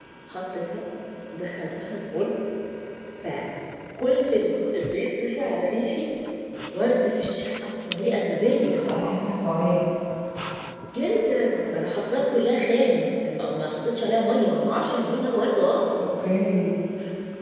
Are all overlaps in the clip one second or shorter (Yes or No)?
Yes